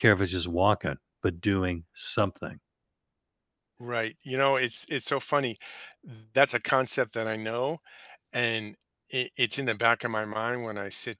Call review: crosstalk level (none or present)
none